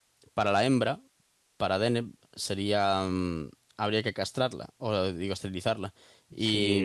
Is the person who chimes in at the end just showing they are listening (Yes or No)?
Yes